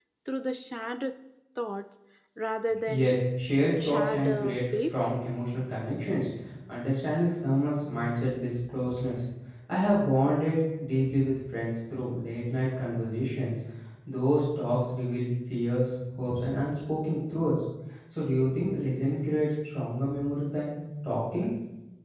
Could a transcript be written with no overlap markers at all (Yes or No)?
No